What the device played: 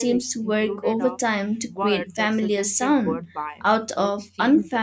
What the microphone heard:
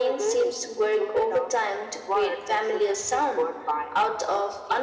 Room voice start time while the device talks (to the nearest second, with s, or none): none